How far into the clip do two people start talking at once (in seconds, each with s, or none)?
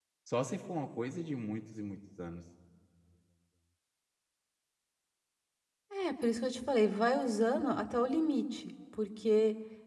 none